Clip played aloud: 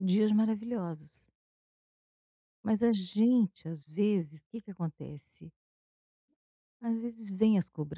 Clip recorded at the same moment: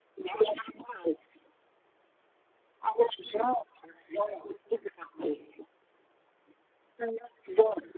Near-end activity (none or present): none